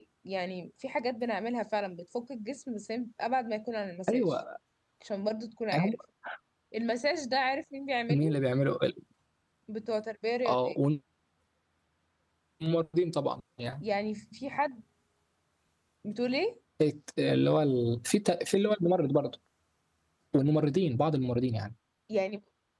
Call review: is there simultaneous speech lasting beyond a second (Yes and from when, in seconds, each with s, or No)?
No